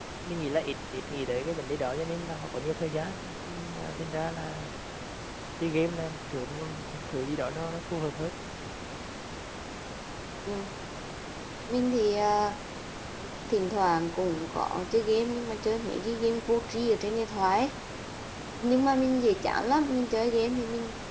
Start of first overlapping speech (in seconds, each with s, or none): none